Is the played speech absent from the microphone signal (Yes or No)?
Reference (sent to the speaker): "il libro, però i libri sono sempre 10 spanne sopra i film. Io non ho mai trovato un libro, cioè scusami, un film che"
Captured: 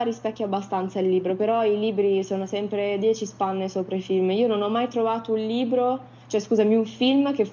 No